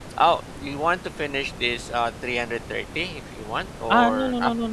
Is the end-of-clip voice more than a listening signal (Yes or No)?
Yes